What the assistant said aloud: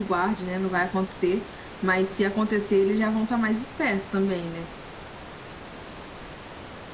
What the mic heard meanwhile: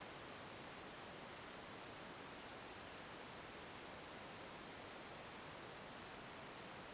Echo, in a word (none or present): none